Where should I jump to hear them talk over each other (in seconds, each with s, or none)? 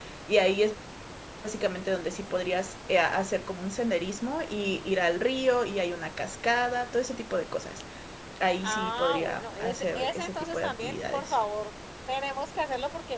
8.6 s